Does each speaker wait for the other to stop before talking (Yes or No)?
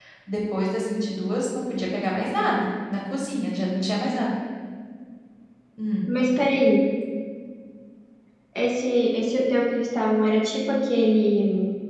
Yes